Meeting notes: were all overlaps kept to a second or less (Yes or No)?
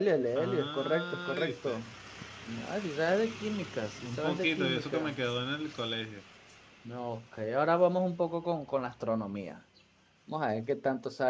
No